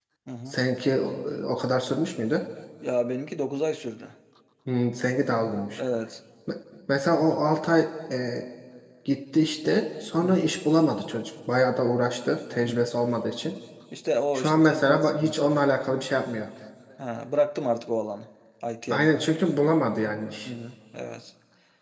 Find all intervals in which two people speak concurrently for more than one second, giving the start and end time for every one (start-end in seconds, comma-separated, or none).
14.3-15.6